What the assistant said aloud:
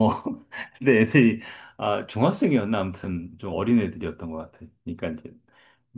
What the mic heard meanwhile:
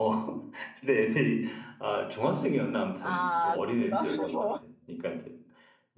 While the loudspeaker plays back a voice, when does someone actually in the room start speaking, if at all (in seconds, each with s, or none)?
3.0 s